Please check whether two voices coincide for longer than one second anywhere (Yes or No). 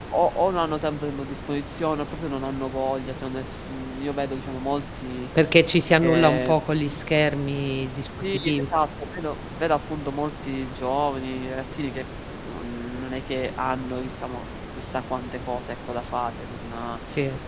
No